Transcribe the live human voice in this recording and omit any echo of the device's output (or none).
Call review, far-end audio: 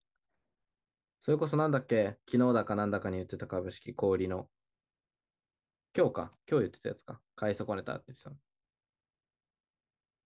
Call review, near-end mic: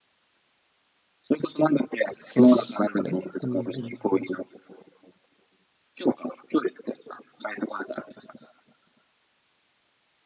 そうっすね。うん、うん、うん。